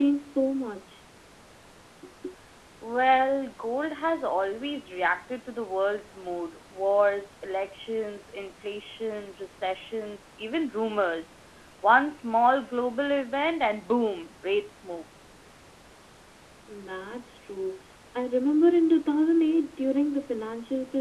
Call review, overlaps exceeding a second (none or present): none